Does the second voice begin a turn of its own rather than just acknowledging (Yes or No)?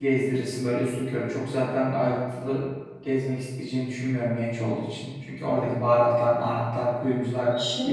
Yes